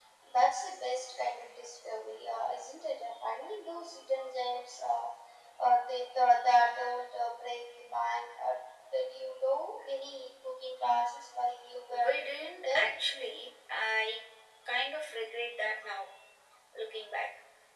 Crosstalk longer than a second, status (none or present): none